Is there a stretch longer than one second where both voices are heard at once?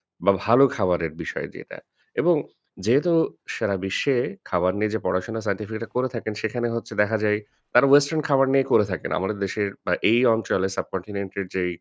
No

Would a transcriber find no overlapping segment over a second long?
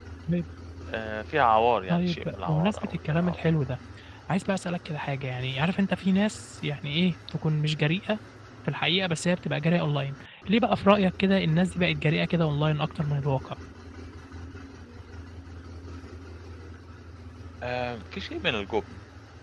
No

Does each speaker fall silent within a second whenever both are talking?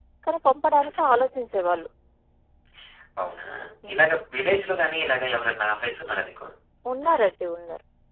Yes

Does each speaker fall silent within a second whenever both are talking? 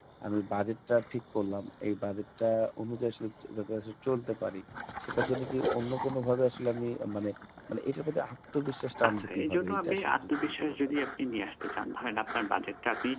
No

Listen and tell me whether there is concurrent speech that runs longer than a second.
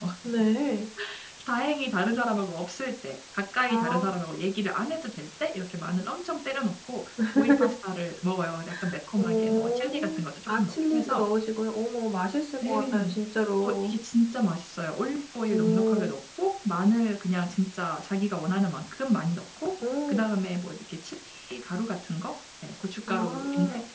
Yes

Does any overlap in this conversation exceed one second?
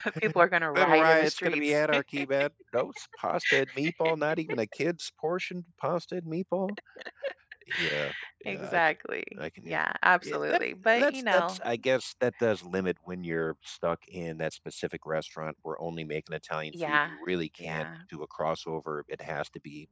Yes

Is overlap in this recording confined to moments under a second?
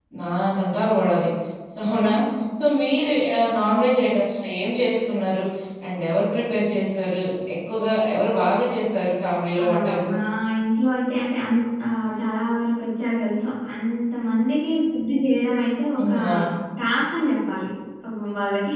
Yes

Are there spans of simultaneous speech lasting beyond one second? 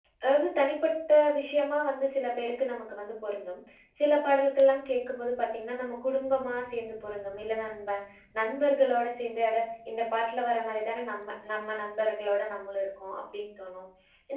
No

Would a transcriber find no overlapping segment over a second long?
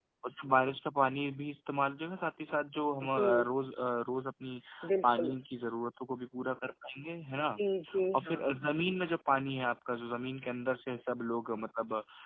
Yes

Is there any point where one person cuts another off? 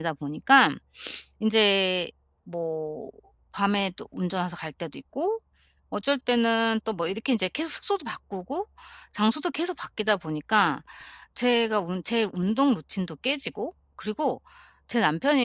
No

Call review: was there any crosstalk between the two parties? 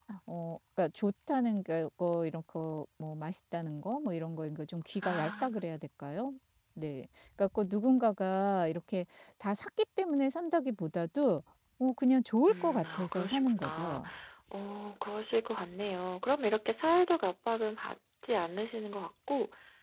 Yes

